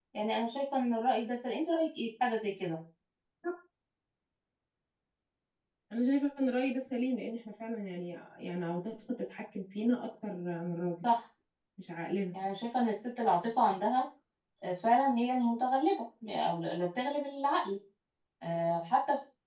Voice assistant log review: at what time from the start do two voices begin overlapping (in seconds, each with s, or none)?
none